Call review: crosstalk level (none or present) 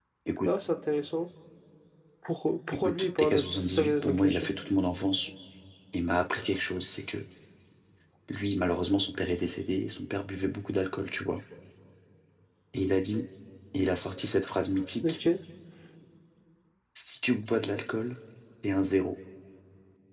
present